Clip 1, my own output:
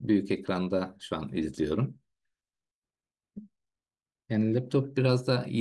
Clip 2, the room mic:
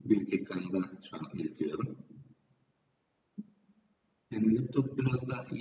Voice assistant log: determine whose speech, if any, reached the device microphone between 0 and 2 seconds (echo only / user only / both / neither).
echo only